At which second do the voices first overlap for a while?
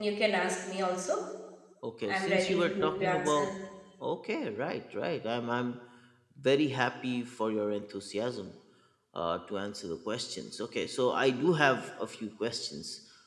2.1 s

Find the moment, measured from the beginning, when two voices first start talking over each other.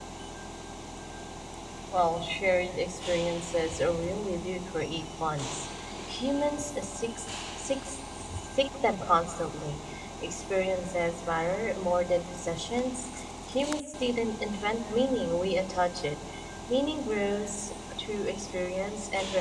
none

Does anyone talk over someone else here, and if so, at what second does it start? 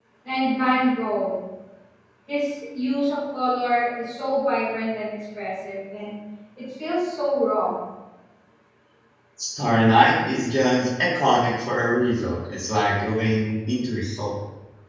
none

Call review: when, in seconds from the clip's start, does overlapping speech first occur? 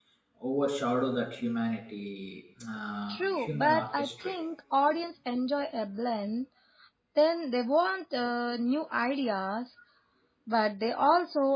3.1 s

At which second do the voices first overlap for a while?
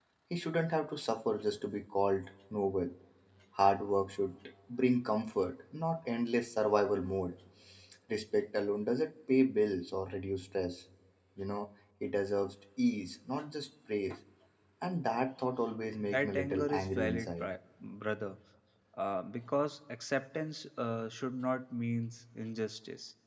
16.0 s

